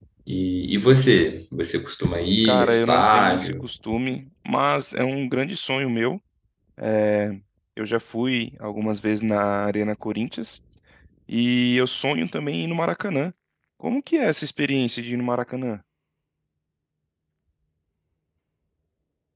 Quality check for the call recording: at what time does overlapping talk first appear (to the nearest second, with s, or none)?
2 s